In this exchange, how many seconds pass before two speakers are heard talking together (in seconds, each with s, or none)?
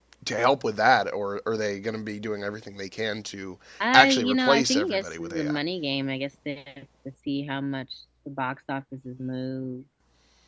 3.9 s